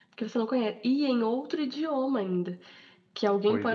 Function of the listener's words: listening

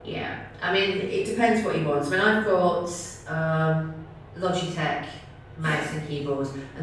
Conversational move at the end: listening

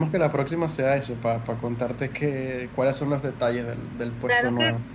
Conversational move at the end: taking over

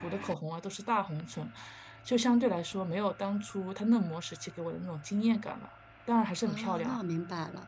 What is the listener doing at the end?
taking over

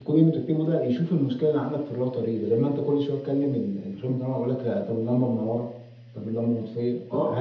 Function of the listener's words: taking over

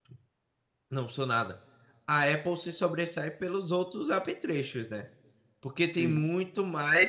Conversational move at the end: listening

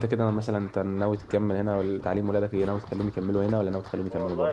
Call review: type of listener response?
taking over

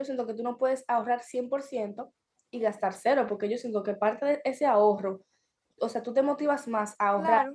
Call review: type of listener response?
listening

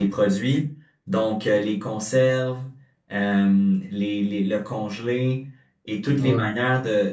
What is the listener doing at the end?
listening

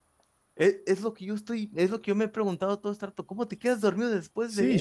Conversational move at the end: taking over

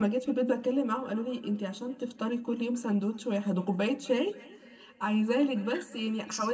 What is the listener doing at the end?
listening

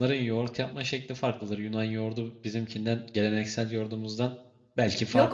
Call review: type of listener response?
taking over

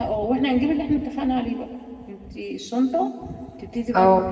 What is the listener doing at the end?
listening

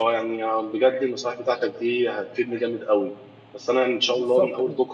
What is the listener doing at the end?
listening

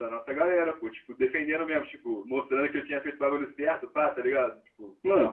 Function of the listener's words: taking over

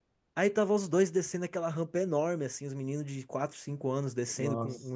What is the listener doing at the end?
listening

